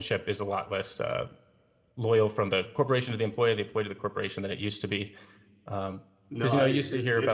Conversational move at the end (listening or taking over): taking over